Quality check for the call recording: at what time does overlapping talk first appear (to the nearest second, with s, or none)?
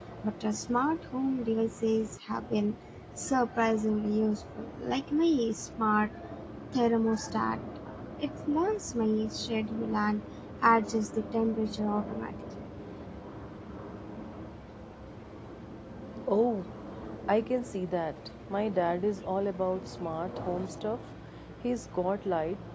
none